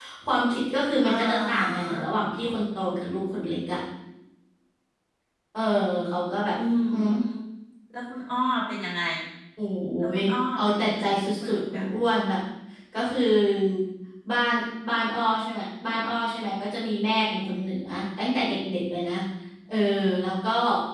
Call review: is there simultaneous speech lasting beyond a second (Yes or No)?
Yes